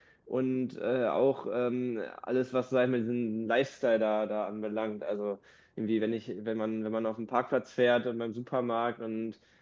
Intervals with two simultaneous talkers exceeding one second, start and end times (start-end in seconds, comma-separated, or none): none